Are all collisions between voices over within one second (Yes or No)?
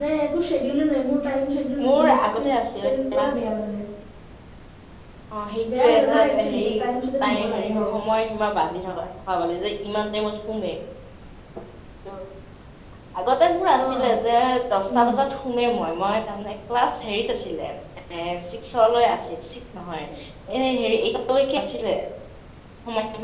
No